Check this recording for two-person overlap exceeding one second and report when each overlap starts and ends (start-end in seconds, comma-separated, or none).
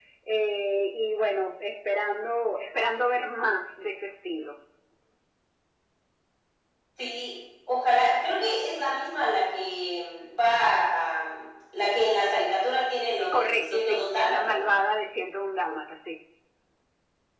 13.3-14.7